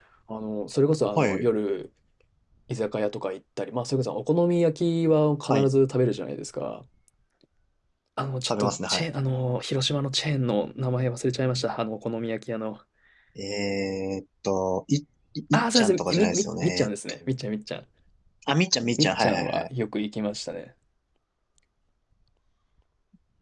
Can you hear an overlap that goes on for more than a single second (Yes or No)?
Yes